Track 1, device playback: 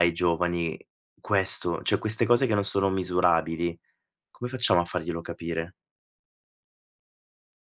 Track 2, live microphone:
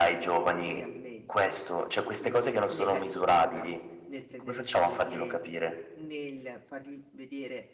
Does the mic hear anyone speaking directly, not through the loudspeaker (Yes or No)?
Yes